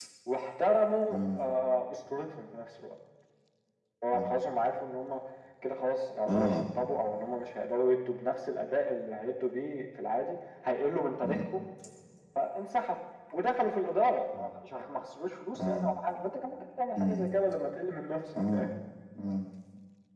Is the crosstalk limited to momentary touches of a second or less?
Yes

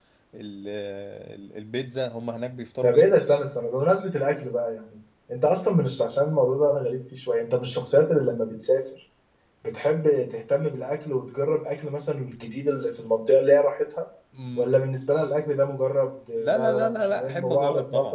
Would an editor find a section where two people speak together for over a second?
Yes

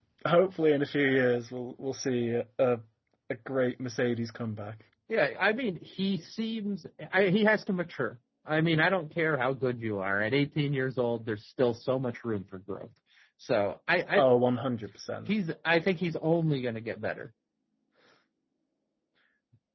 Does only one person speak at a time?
Yes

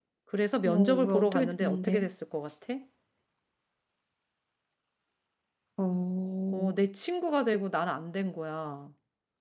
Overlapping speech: Yes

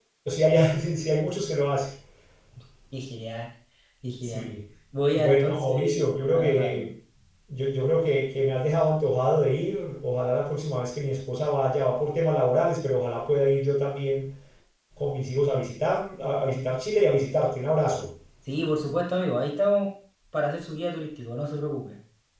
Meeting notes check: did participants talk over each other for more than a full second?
Yes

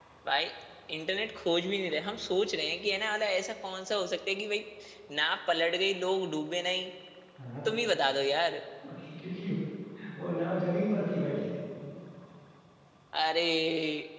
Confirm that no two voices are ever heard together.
Yes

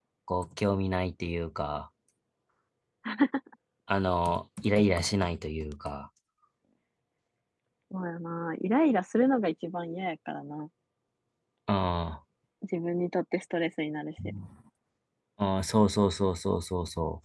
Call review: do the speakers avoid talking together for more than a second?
Yes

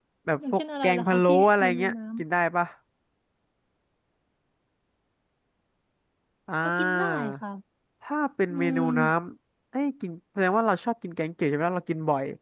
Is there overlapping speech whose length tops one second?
Yes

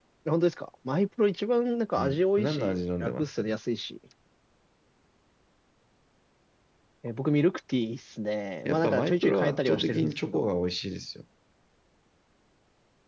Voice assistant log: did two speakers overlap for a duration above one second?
Yes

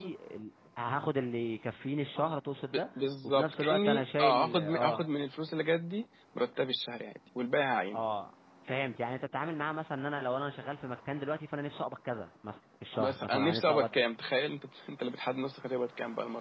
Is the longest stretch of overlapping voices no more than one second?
No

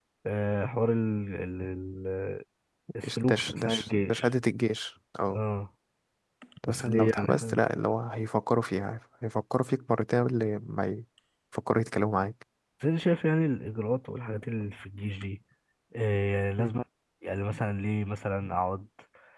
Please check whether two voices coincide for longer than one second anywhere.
Yes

